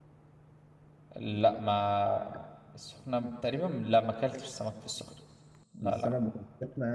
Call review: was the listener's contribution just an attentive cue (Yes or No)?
No